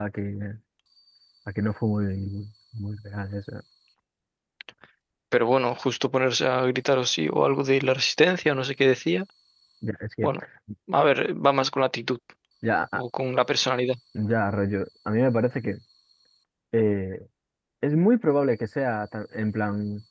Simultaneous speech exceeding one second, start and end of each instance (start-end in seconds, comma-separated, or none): none